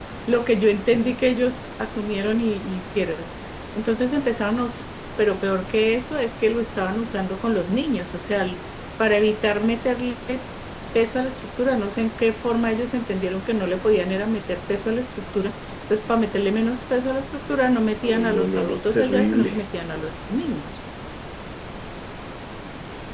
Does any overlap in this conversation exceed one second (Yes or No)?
Yes